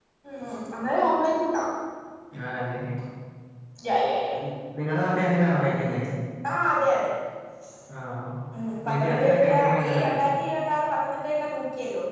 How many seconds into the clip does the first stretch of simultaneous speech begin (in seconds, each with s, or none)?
8.9 s